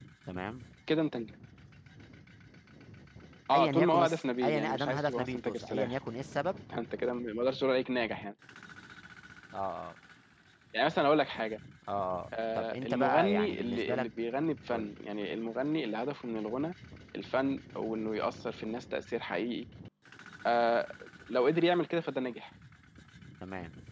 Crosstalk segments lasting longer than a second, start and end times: 3.5-6.0, 12.3-14.0

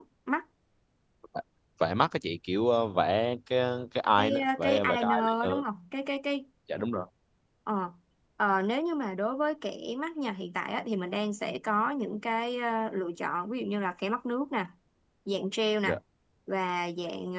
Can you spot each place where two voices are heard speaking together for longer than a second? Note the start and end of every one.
4.2-5.6

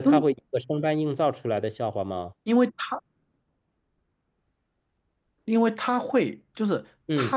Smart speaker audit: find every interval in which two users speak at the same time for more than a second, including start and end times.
none

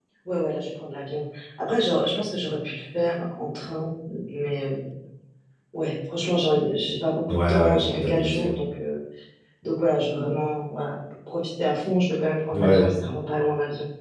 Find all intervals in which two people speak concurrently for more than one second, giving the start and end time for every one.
7.3-8.5

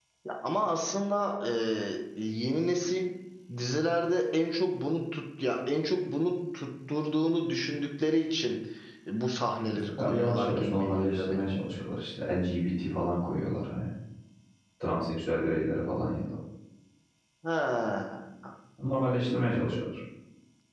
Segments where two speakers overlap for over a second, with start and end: 9.8-11.5

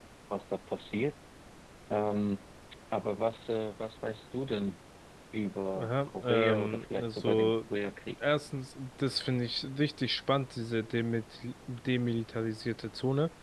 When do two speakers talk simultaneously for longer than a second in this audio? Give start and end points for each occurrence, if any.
5.8-7.5

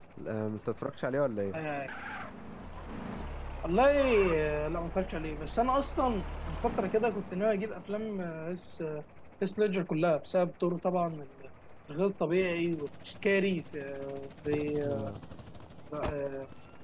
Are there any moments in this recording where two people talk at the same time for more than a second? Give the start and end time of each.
none

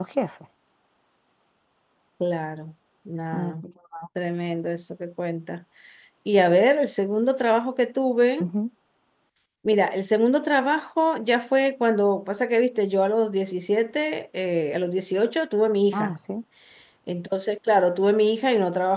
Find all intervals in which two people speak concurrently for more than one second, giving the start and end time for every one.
none

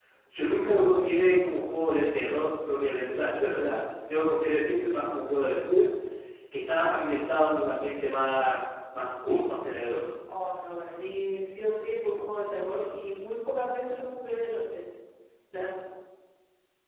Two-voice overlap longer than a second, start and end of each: none

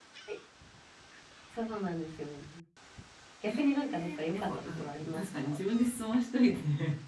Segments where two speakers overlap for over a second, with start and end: 3.5-5.6

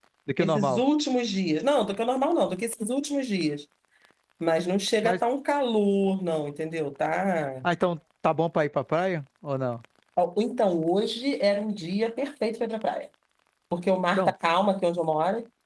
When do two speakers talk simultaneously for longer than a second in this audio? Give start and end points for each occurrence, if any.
none

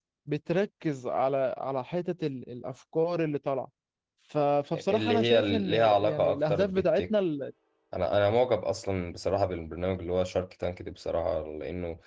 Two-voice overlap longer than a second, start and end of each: 4.8-7.0

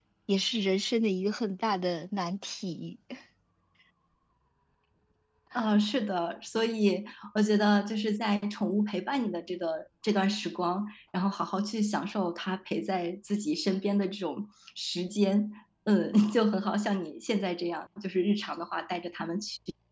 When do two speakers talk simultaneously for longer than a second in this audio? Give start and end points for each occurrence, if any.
none

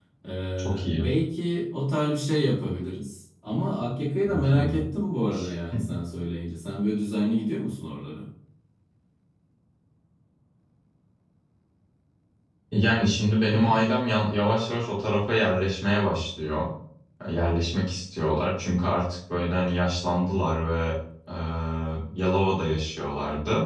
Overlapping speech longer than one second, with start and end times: none

